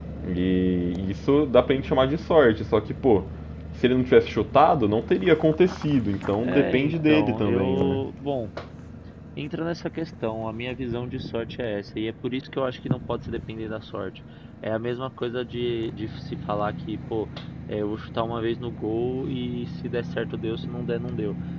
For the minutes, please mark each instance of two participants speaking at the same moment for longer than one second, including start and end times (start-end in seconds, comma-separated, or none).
6.4-8.0